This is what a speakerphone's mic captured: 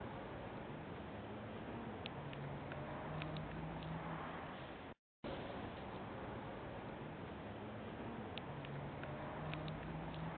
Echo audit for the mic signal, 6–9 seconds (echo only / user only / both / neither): neither